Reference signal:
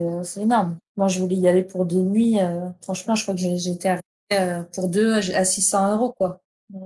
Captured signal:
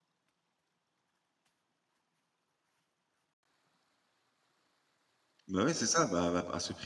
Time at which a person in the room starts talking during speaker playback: 5 s

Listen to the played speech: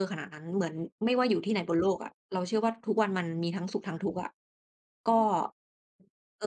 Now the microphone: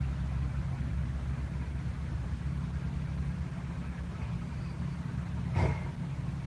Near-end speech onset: none

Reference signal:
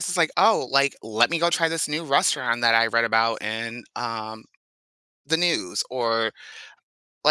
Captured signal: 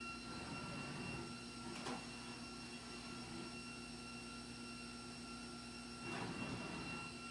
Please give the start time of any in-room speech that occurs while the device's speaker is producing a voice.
none

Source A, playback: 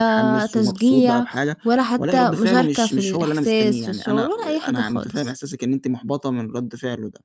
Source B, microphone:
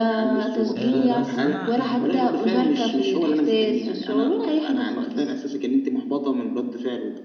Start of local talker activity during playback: 1 s

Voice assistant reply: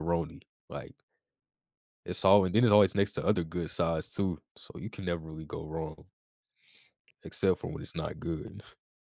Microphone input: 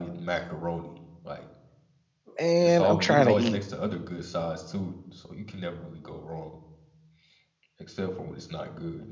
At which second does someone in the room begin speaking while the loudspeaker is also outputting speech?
2 s

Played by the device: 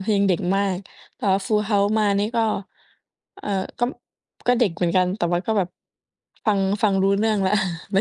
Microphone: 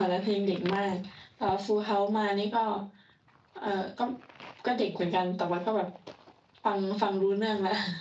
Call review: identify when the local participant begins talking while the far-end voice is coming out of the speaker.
none

